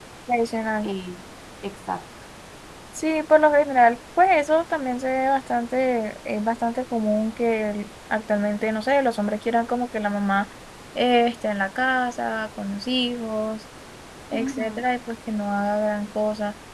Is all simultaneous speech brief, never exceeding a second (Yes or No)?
Yes